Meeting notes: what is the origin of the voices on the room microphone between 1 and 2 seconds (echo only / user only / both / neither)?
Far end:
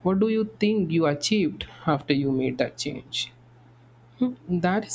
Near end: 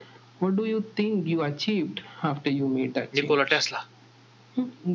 echo only